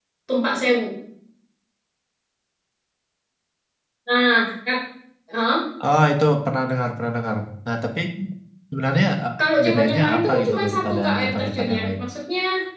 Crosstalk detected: Yes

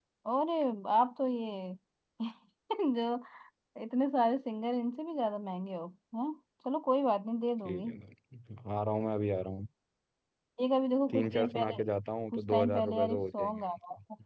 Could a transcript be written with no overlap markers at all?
No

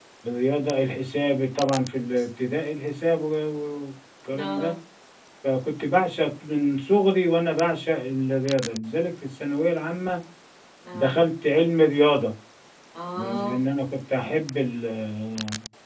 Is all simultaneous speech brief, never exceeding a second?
Yes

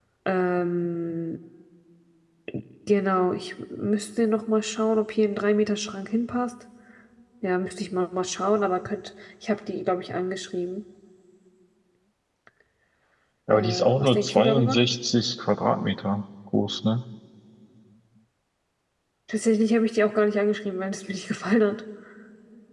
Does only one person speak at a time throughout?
No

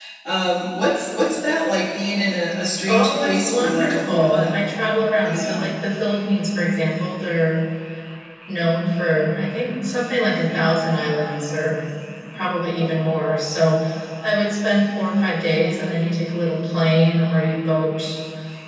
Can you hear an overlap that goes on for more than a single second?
Yes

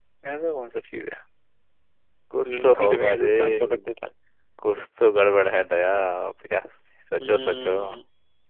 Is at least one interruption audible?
Yes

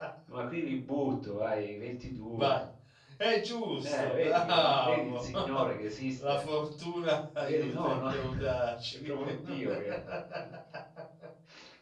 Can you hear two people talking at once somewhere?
Yes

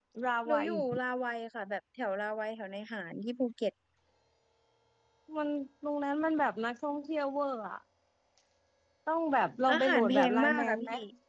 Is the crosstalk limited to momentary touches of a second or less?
No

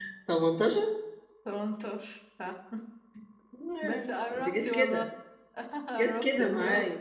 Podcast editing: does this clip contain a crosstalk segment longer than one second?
Yes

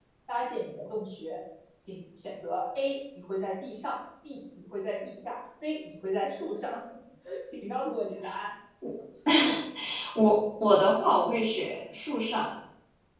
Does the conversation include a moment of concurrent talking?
No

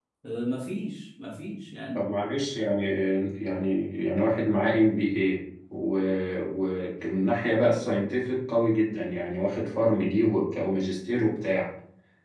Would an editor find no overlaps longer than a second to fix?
Yes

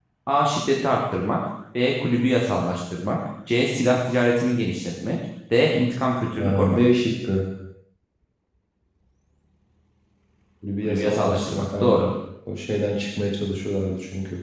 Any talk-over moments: Yes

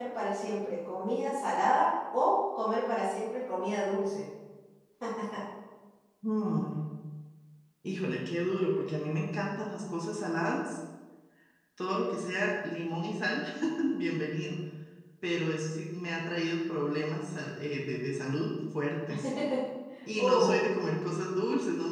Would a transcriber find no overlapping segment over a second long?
Yes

